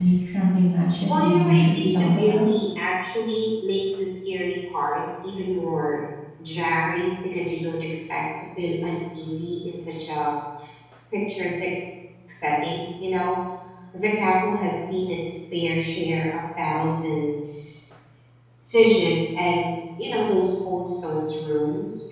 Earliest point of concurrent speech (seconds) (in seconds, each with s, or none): 1.1 s